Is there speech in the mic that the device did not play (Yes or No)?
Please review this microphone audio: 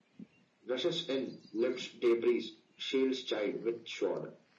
No